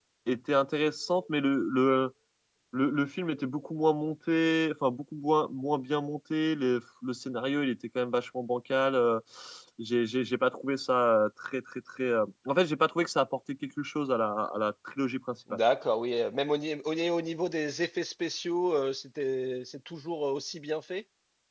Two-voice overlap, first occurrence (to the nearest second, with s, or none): none